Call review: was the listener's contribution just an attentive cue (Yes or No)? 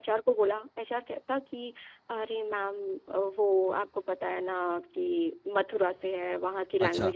Yes